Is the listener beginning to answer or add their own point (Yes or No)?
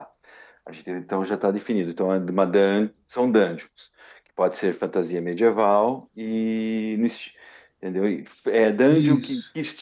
No